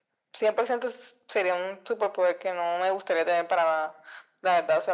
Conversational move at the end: listening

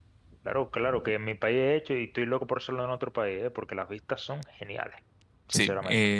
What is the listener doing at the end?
taking over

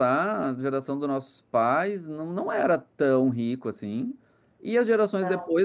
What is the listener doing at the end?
listening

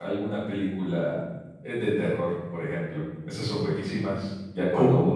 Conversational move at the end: listening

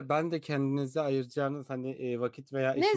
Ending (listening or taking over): taking over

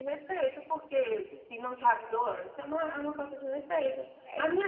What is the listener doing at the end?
listening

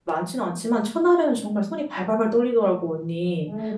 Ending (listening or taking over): taking over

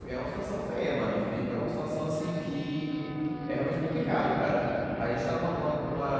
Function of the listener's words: listening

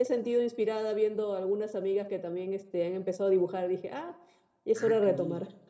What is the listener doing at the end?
taking over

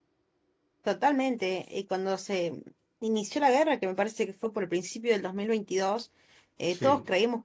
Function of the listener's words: listening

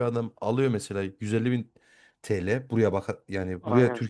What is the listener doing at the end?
listening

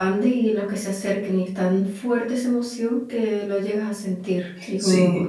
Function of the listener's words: taking over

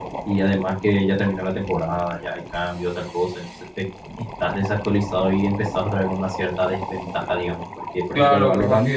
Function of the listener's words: taking over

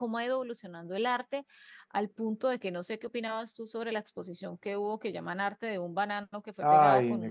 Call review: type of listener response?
taking over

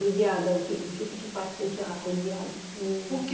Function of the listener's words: taking over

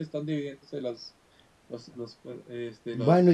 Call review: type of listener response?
taking over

